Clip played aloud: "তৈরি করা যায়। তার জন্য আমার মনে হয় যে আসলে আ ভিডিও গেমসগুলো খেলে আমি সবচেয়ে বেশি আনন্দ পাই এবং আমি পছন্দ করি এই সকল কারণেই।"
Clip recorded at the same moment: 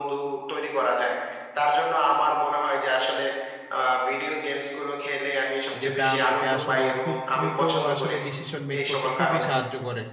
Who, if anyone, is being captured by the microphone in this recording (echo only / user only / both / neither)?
both